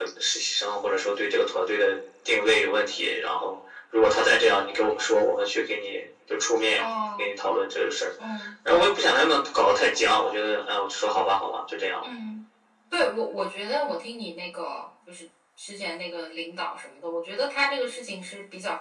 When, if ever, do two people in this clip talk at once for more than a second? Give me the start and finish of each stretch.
none

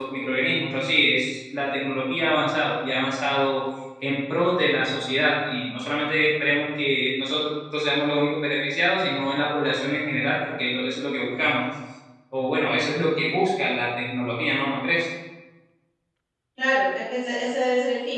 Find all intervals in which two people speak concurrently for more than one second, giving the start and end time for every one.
none

